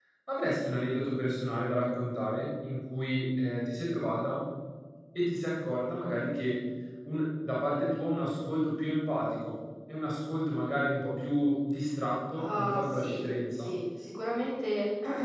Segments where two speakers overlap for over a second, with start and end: 12.4-13.8

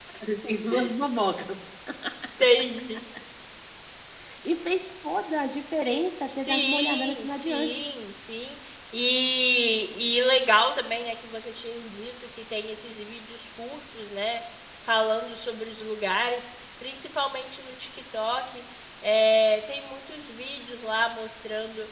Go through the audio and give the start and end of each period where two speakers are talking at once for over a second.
6.5-7.7

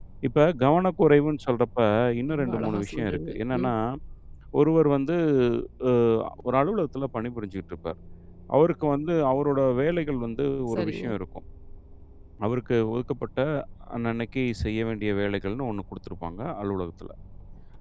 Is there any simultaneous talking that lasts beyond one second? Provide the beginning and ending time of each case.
2.3-3.7

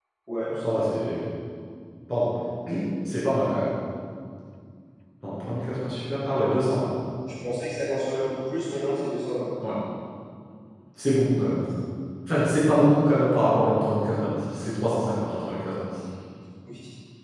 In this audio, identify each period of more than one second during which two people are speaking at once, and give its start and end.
none

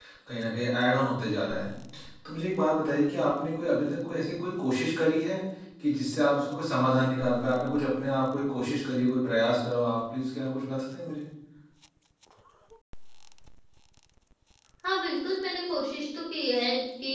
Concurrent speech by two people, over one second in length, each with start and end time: none

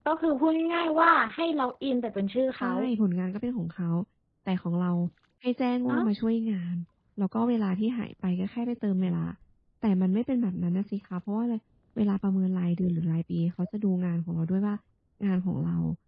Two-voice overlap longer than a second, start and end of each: none

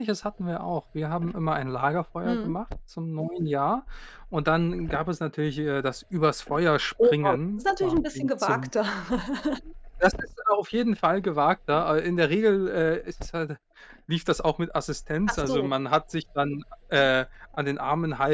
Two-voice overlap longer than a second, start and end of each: 7.0-8.7

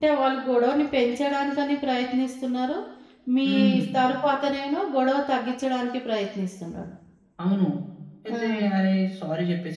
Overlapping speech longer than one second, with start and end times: none

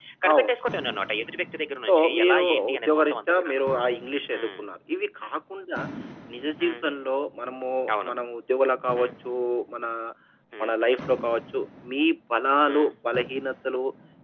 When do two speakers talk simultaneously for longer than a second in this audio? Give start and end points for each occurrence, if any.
1.9-3.6

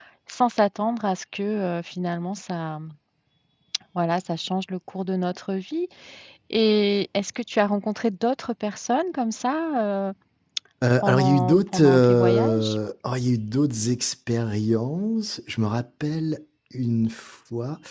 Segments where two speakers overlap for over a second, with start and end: 11.0-12.8

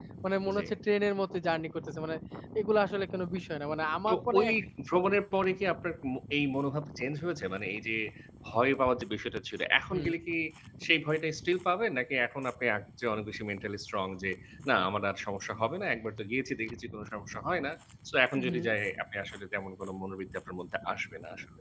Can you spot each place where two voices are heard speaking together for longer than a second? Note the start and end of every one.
none

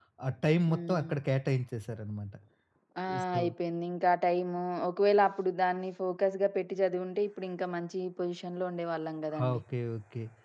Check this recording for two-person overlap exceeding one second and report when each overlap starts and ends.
none

